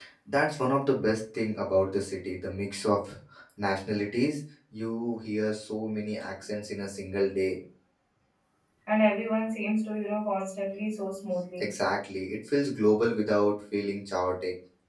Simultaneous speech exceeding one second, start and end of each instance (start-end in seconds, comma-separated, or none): none